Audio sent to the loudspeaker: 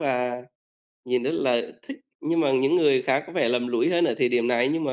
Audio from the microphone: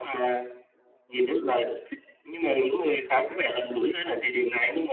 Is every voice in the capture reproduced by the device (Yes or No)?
Yes